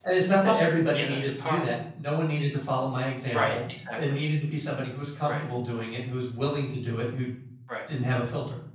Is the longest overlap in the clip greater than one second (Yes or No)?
Yes